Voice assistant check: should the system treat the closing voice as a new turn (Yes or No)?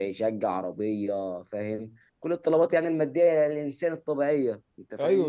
Yes